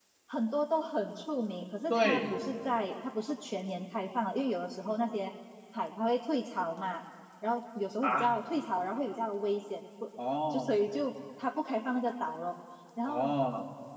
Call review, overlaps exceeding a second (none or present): none